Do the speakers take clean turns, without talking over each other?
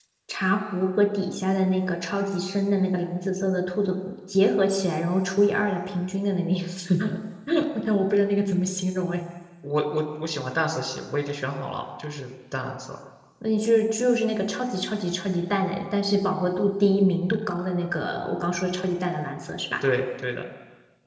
Yes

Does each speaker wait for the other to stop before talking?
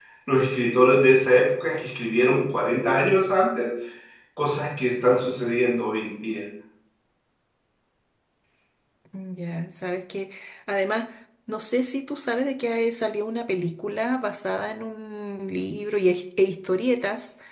Yes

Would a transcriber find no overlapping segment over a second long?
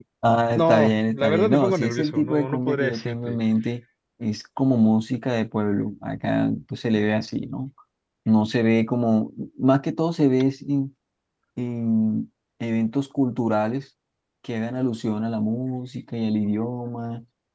No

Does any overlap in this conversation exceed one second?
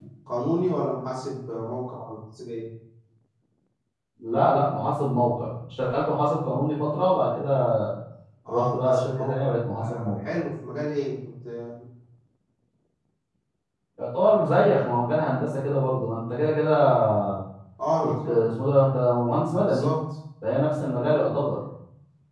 Yes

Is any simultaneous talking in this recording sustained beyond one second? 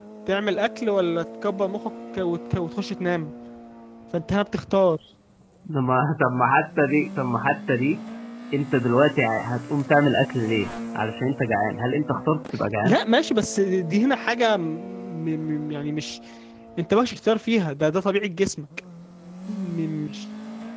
No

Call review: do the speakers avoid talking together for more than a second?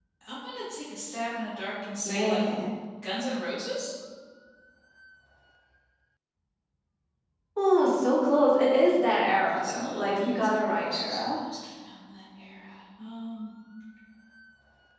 No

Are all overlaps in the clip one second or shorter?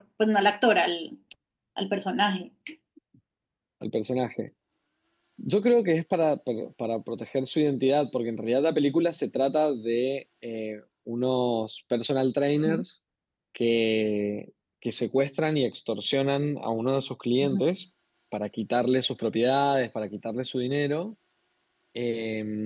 Yes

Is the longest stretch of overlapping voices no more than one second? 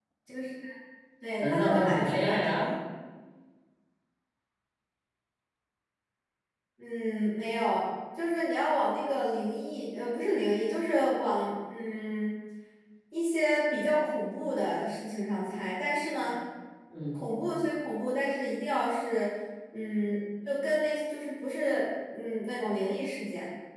No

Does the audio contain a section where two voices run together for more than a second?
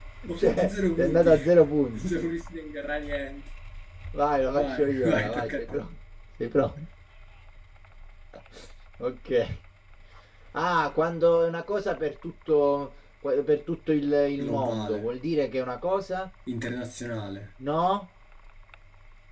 Yes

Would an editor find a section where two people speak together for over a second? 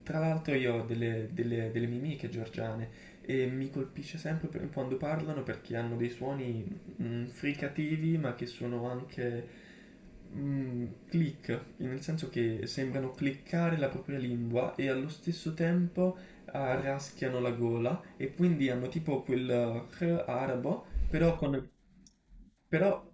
No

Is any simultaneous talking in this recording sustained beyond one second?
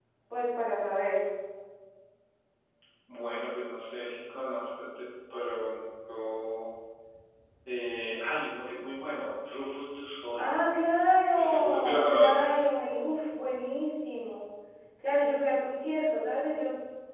Yes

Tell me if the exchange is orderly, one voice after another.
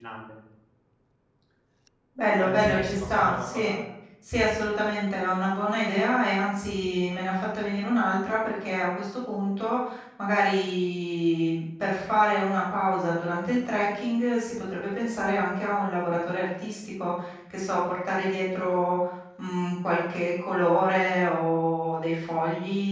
No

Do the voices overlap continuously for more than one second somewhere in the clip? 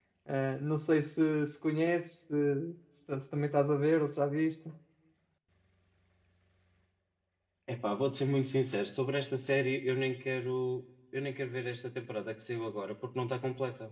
No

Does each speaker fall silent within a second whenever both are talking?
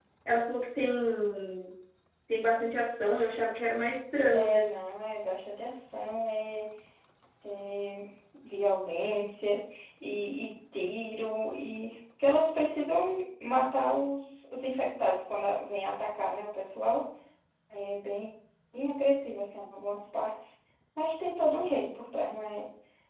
Yes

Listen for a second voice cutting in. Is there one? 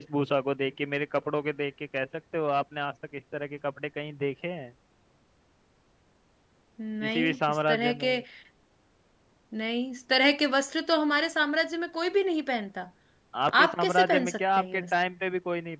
Yes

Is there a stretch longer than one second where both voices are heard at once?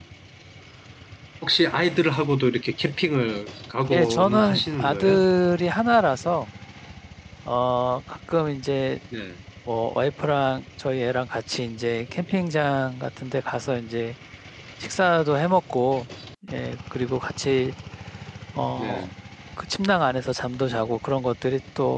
Yes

